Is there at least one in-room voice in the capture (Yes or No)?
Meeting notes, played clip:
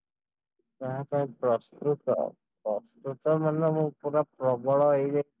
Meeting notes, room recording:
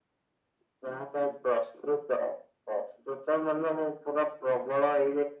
No